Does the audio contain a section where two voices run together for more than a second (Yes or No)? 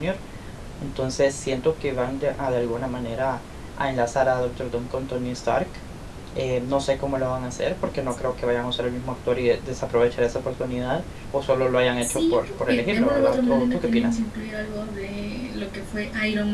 Yes